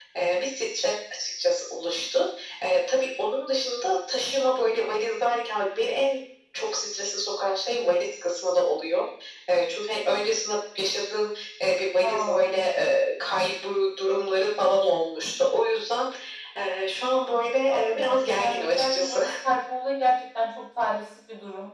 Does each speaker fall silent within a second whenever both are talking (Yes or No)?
No